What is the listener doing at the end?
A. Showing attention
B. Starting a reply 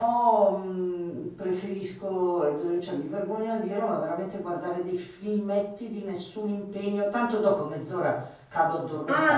B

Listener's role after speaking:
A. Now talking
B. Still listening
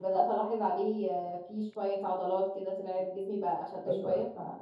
A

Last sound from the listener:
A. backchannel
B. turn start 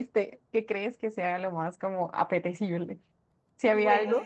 B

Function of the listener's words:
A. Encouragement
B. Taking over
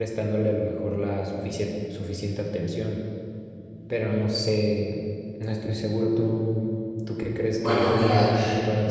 B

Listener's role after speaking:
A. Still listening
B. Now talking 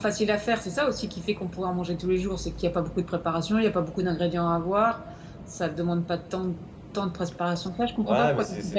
B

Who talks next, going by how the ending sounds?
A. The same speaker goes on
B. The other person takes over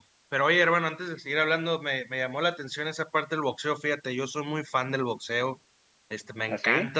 A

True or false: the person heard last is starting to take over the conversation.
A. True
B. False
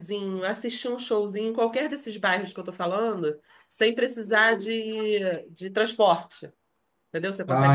B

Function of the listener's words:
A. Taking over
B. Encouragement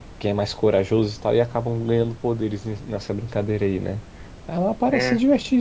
B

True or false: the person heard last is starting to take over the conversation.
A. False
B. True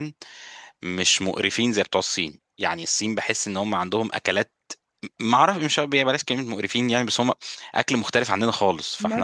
B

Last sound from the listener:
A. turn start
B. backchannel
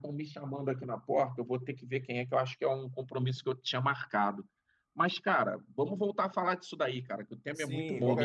A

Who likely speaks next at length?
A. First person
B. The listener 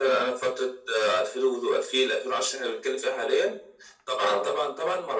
A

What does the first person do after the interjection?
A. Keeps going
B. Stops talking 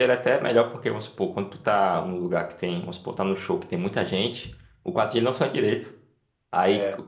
A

